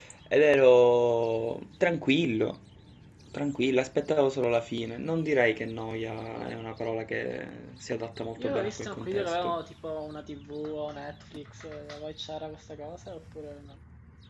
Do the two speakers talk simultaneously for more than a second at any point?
Yes, from 8.4 s

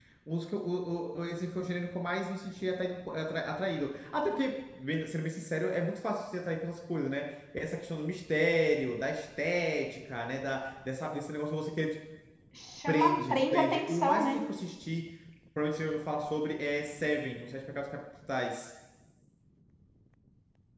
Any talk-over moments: Yes, from 12.9 s

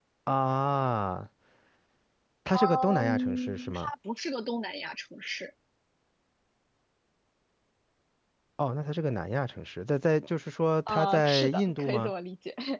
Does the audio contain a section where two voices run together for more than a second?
Yes, from 2.5 s

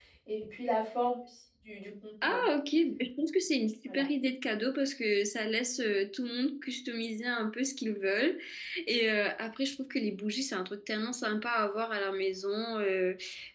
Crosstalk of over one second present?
No

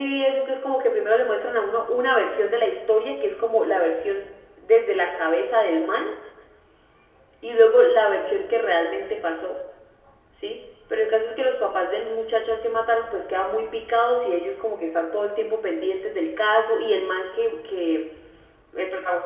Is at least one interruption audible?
No

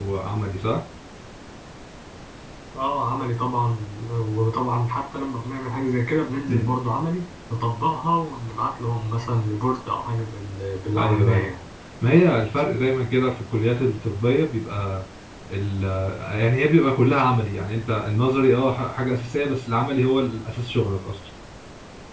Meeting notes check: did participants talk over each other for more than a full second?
No

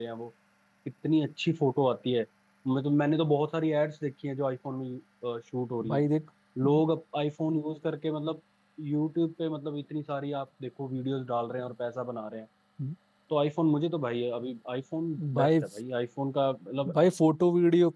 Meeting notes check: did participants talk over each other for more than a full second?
No

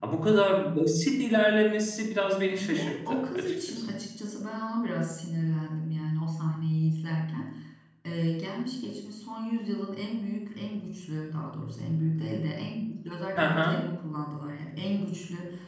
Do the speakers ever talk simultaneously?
Yes, from 2.5 s

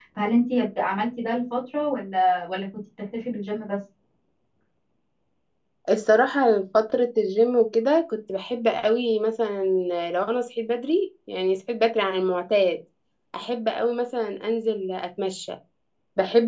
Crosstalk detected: No

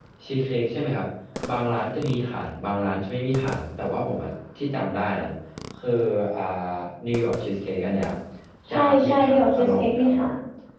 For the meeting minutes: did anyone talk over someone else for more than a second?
Yes, from 8.7 s

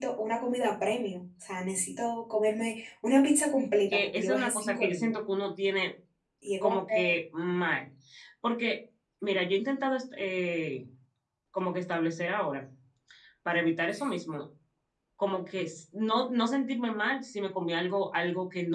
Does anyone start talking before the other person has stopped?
Yes, from 3.9 s

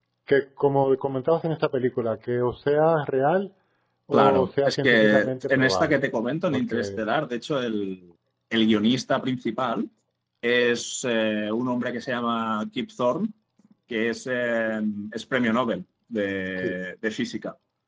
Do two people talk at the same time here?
Yes, from 4.1 s

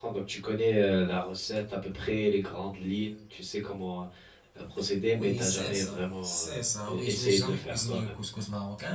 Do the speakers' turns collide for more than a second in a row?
Yes, from 5.1 s

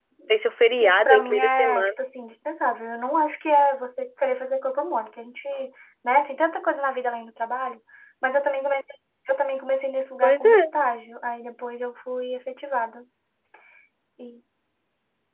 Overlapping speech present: Yes, from 0.8 s

